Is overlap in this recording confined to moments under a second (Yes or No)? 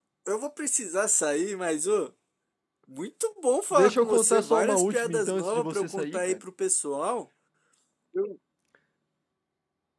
No